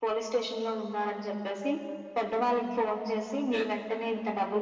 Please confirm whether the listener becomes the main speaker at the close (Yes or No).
No